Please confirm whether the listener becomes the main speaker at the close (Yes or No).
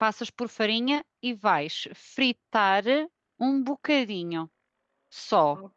Yes